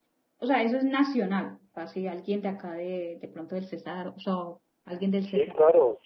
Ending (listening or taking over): taking over